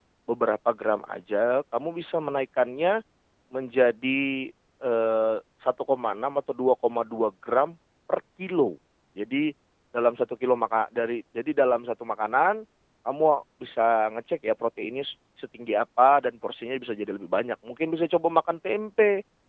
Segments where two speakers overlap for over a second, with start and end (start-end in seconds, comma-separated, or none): none